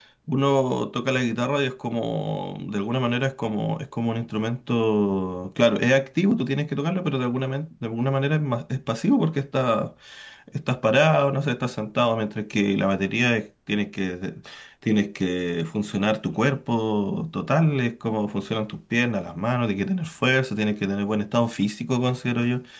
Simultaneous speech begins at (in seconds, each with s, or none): none